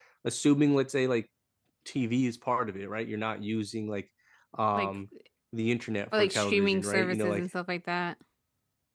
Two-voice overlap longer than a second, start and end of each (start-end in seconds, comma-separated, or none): 6.2-7.5